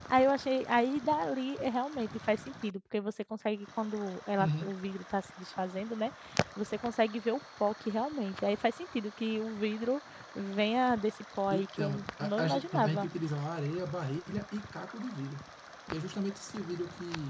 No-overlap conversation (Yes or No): No